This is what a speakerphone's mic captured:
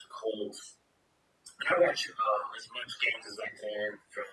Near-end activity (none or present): none